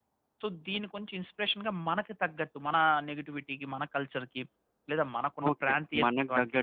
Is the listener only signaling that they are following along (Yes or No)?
No